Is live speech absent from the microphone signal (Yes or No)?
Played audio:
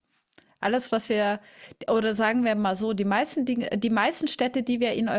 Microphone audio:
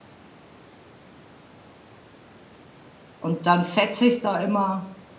No